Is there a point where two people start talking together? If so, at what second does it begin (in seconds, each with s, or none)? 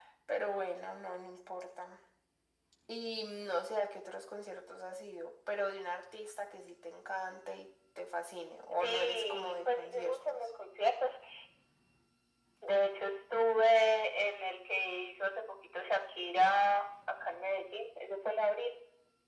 8.8 s